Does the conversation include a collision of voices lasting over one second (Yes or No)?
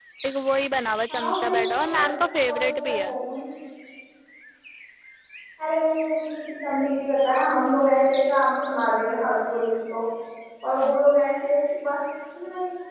Yes